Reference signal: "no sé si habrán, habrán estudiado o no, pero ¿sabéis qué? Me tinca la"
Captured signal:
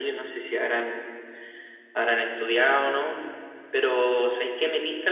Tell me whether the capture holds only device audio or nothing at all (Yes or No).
Yes